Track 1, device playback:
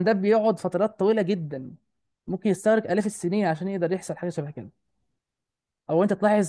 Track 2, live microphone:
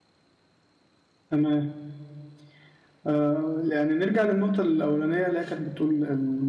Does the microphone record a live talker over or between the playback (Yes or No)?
Yes